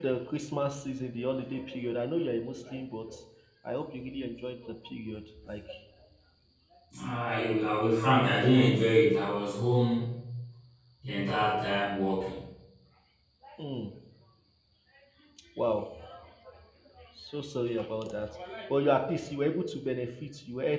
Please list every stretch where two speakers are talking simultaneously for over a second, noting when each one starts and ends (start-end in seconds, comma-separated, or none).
none